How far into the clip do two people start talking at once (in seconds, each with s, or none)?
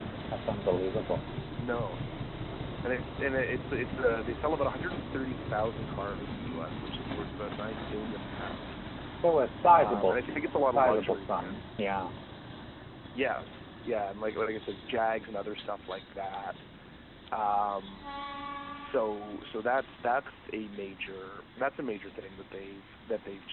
9.7 s